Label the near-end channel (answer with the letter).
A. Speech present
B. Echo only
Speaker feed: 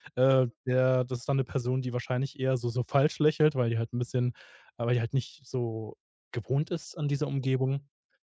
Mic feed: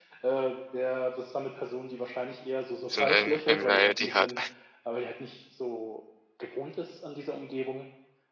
A